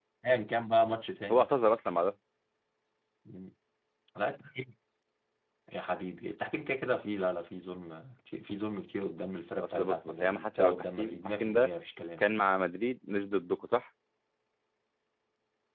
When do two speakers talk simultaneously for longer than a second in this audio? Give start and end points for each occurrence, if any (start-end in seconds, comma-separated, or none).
9.6-11.7